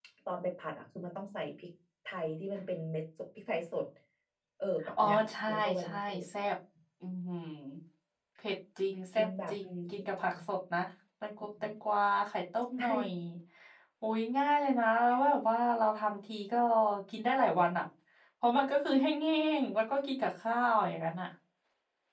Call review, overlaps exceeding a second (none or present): present